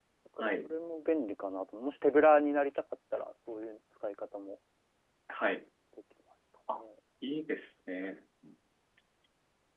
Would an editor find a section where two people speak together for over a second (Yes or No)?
No